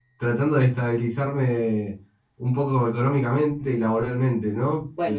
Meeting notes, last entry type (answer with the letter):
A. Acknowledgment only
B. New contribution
B